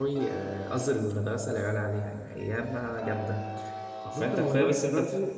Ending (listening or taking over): taking over